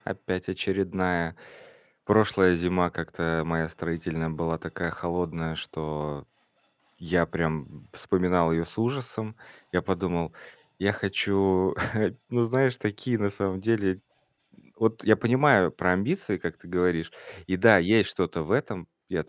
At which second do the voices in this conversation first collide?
none

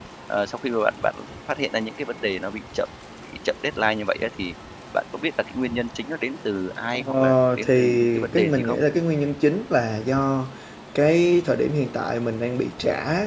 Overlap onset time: 6.9 s

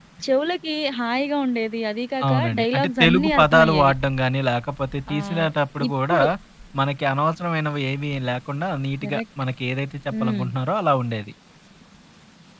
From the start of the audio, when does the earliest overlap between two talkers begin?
2.3 s

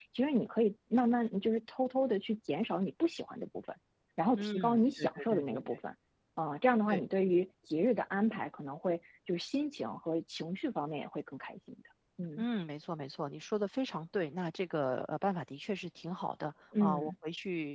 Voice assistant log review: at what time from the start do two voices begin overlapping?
4.4 s

